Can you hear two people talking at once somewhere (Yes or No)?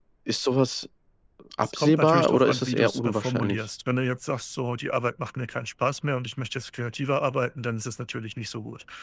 Yes